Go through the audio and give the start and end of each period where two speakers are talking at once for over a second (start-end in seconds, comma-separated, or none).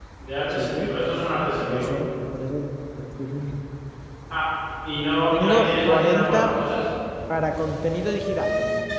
5.3-6.5